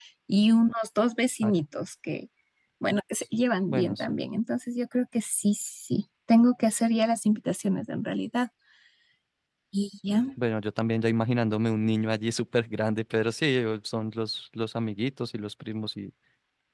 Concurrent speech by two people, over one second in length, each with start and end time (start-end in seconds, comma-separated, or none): none